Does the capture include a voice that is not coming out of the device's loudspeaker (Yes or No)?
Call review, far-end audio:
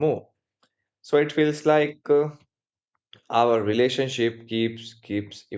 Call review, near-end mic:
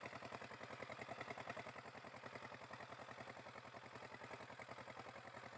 No